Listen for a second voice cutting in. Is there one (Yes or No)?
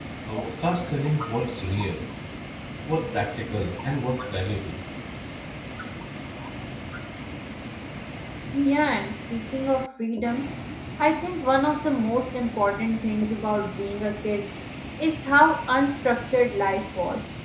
No